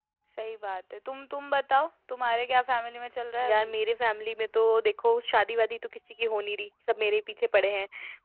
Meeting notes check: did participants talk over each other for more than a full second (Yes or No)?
No